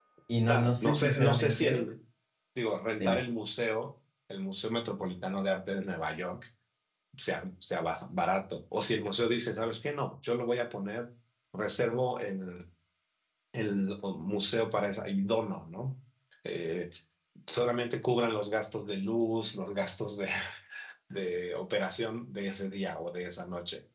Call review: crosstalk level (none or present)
present